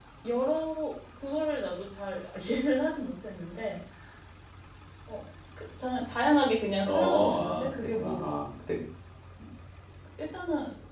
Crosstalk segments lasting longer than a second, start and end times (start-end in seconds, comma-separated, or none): 6.9-8.2